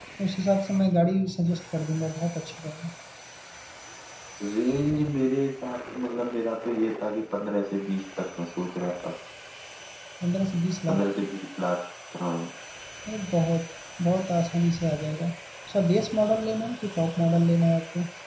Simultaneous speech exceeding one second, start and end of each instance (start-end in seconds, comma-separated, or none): none